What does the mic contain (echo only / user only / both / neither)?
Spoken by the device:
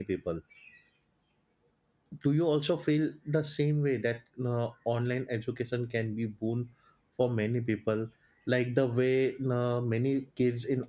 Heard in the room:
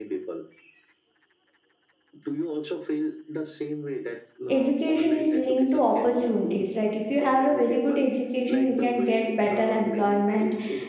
both